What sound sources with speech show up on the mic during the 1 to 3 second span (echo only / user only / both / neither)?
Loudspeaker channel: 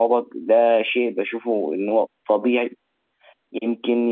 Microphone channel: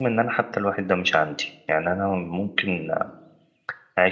user only